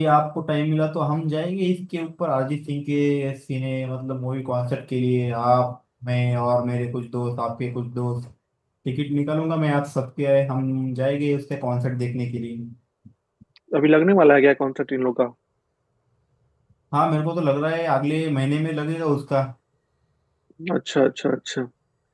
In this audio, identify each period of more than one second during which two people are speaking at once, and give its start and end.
none

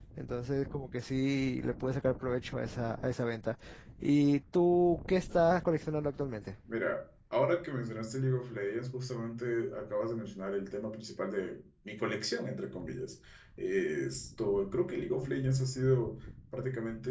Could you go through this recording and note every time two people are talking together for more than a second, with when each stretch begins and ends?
none

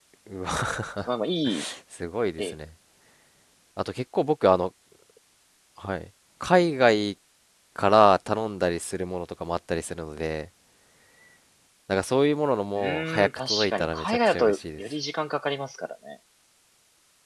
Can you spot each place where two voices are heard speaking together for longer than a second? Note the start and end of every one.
12.8-14.8

